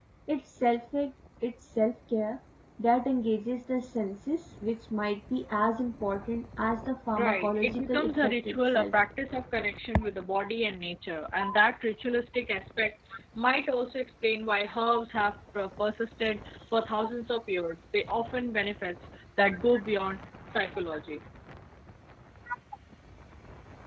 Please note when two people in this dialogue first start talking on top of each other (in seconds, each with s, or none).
7.1 s